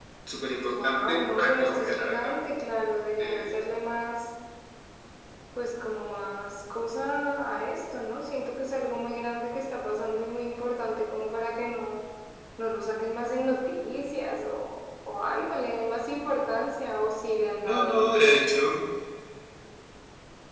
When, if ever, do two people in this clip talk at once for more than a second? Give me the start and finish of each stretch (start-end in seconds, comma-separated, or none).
0.7-2.3